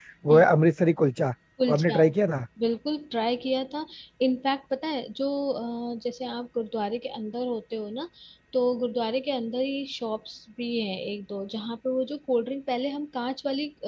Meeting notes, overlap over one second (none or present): none